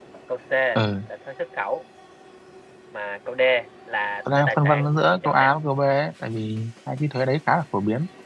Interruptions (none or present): present